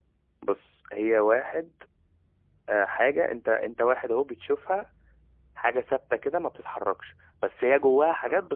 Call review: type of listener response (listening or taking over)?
listening